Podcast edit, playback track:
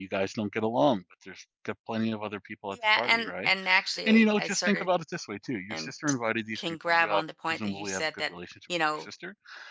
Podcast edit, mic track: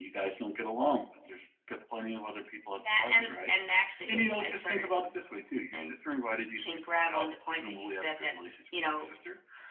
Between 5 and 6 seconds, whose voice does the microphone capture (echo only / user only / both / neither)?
echo only